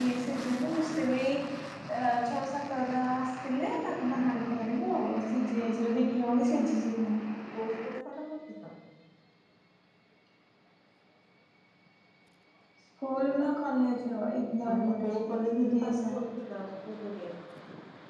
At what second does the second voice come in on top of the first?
15 s

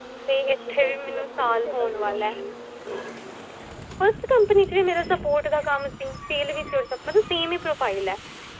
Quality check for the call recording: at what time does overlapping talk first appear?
1 s

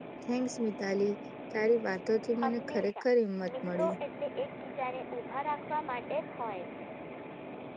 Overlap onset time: 2 s

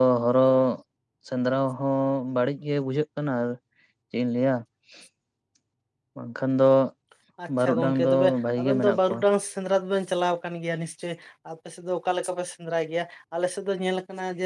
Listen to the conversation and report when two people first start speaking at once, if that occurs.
8 s

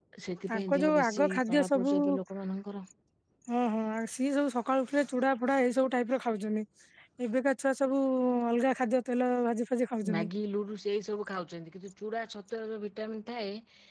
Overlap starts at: 1 s

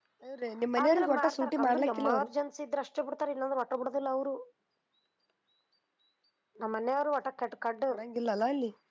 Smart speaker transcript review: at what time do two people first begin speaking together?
1 s

